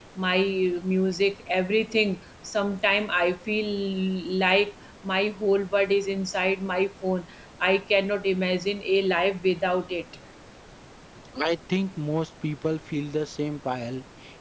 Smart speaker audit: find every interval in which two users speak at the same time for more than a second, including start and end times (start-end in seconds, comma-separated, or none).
none